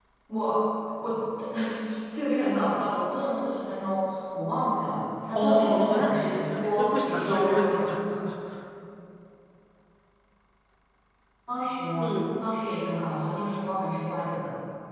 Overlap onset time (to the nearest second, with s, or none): 5 s